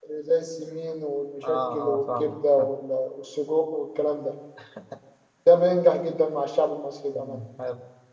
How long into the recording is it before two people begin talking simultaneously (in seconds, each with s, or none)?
1.5 s